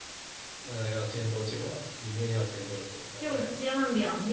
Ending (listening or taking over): taking over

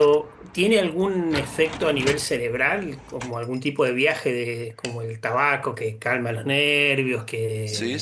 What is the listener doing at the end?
taking over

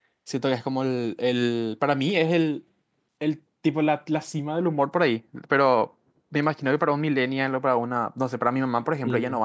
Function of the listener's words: taking over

